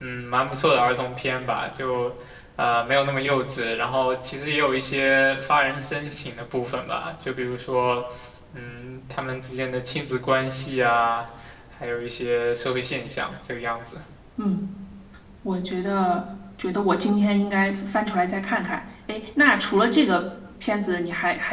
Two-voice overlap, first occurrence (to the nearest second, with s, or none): none